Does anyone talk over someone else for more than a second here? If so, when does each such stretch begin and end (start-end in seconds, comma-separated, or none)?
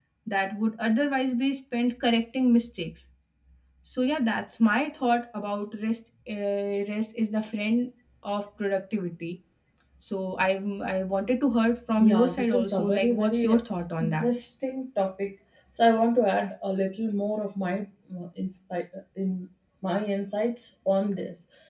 12.0-13.6